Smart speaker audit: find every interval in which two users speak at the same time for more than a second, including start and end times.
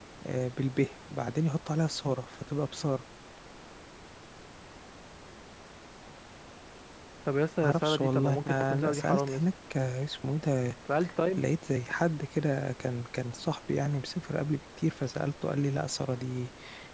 7.6-9.4

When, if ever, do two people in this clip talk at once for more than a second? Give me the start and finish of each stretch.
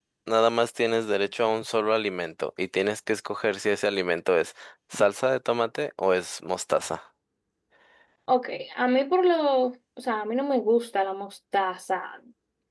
none

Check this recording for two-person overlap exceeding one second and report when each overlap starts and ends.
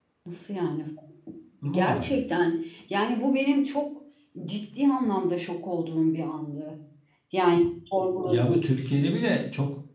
none

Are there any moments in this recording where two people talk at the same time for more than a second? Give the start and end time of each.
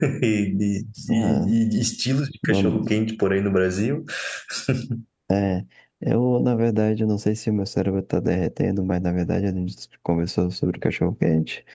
none

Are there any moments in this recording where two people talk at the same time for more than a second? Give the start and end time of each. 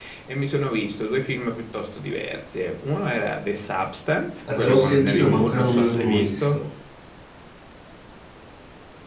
4.6-6.6

